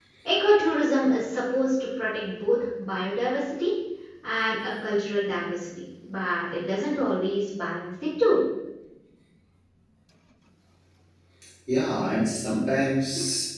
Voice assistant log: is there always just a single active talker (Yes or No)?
Yes